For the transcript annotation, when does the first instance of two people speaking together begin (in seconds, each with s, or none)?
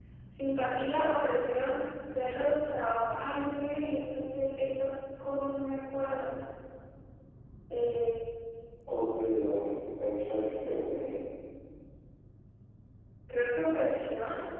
none